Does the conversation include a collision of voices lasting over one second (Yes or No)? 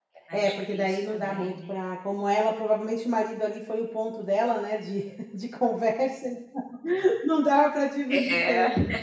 Yes